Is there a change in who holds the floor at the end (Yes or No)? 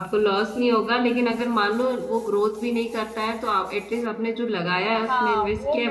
Yes